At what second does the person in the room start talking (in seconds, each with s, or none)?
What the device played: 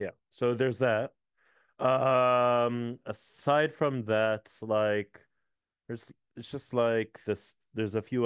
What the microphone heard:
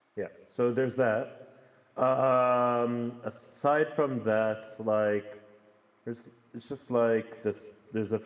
none